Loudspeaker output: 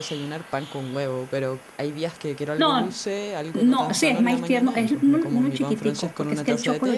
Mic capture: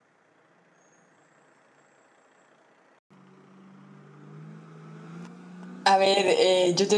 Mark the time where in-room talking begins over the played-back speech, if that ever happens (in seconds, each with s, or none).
5.8 s